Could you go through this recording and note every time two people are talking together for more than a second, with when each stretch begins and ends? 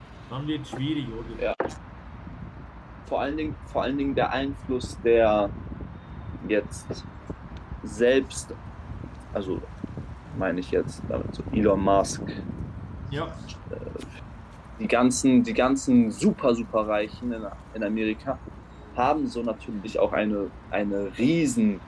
none

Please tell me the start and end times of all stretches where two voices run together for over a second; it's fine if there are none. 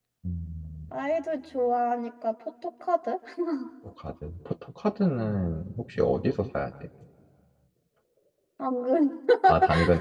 none

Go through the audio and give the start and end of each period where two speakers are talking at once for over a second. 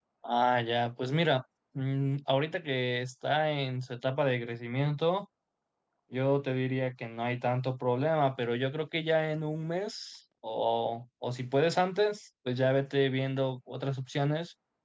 none

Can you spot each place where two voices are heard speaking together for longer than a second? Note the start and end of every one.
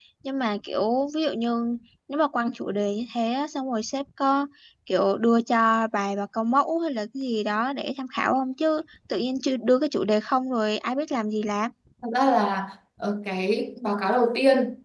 none

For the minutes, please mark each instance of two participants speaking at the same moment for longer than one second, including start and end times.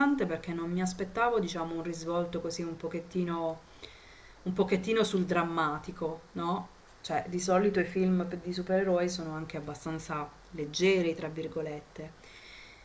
none

